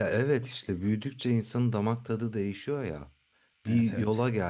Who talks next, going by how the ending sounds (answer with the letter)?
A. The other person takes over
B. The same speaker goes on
B